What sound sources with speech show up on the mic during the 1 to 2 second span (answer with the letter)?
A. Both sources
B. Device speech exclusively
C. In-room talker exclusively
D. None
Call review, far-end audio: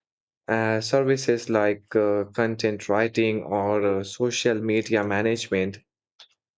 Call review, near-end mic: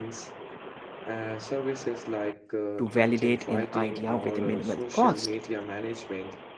B